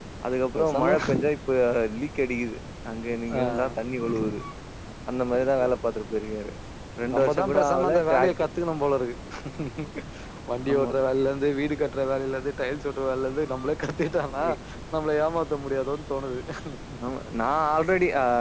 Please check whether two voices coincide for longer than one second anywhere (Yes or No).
Yes